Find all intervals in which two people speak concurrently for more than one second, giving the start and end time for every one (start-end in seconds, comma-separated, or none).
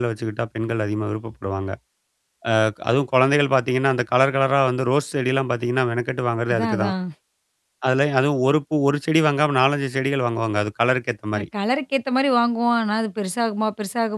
none